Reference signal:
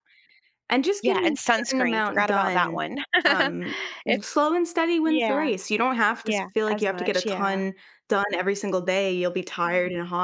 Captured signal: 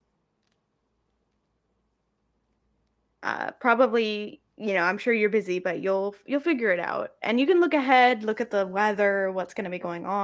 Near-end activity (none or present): present